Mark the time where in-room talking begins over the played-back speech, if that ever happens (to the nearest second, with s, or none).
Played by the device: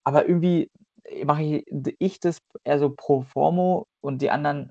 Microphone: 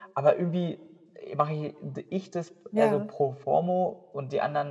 3 s